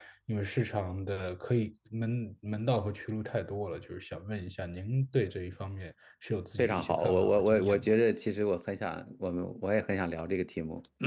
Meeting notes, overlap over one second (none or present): present